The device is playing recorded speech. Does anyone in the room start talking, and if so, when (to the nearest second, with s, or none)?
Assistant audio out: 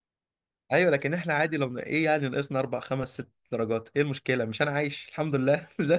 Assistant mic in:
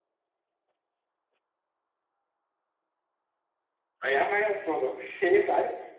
4 s